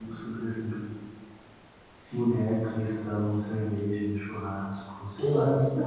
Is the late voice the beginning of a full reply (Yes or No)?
No